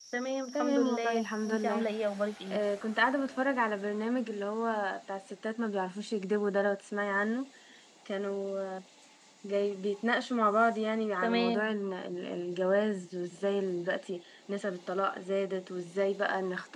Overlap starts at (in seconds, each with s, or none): 0.5 s